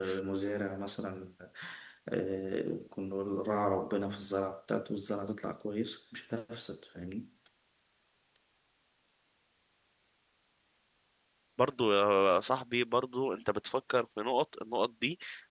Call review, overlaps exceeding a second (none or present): none